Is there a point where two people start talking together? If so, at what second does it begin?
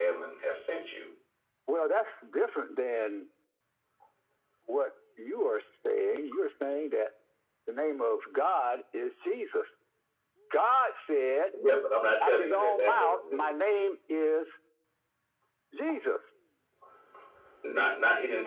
12.2 s

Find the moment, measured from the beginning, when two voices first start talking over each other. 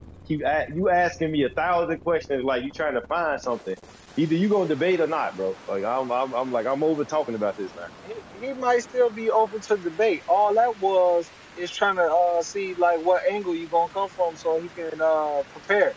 none

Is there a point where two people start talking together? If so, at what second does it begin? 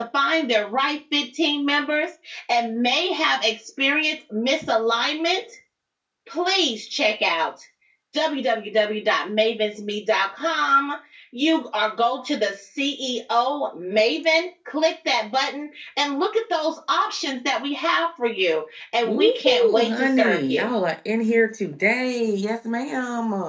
19.1 s

